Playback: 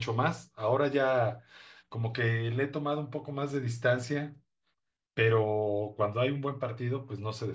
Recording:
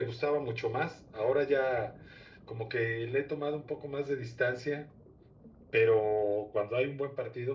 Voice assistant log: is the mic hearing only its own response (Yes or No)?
Yes